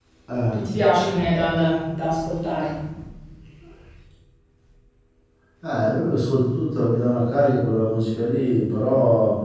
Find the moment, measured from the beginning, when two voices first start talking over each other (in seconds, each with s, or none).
none